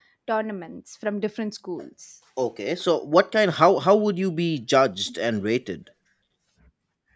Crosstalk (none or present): none